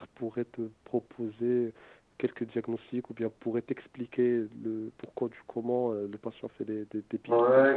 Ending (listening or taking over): taking over